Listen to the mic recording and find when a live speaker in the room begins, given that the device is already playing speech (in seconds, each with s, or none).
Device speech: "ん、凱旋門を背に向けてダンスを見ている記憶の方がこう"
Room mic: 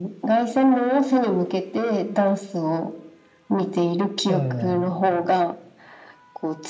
4.3 s